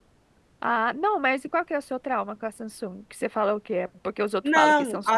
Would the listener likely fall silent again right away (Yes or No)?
No